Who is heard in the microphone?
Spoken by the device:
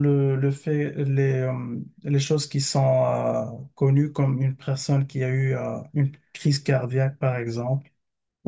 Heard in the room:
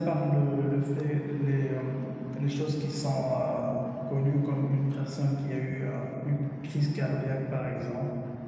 echo only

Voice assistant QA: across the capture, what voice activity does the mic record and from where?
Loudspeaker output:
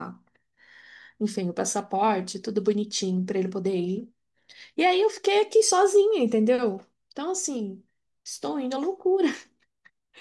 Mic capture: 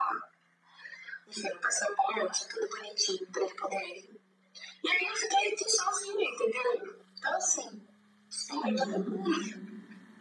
both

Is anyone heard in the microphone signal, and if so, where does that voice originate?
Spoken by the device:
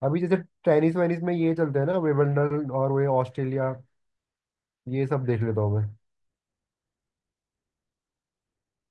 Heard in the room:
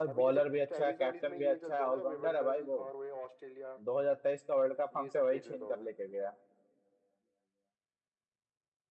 both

